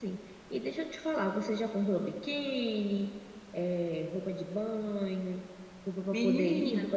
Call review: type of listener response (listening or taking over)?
listening